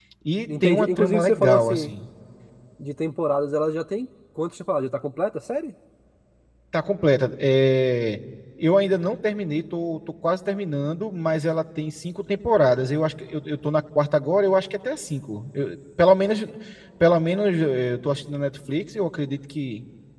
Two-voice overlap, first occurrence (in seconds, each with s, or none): 0.6 s